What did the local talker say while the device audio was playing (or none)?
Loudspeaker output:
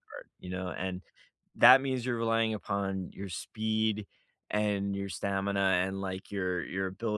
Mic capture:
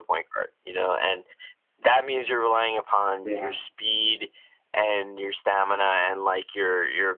Yeah.